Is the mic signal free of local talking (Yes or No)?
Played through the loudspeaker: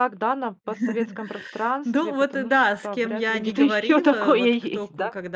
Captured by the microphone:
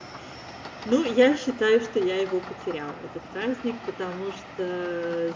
No